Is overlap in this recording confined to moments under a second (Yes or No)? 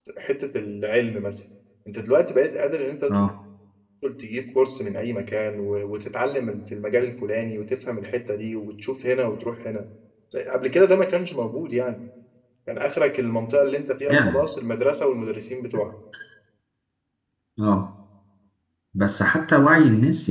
Yes